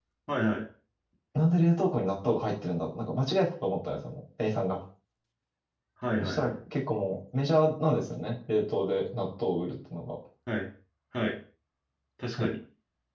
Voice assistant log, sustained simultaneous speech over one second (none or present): none